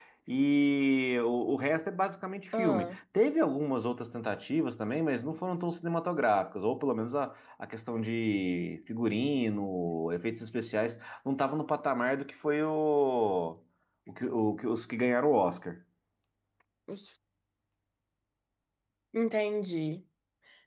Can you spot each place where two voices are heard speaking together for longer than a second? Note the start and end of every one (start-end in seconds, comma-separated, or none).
none